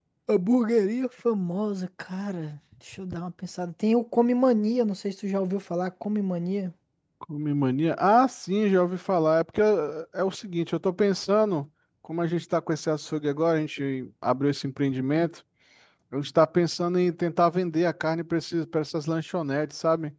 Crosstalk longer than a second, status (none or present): none